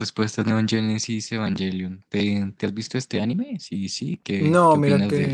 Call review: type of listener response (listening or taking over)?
taking over